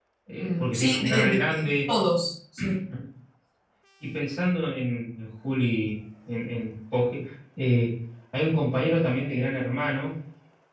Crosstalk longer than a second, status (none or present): present